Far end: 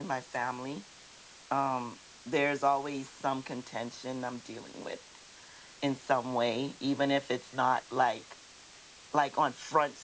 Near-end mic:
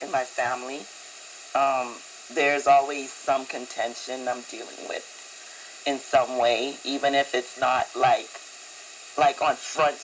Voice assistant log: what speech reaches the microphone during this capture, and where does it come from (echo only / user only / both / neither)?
echo only